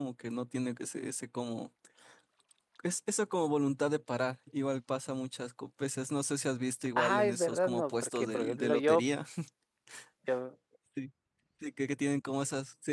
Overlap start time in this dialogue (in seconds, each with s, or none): 7.0 s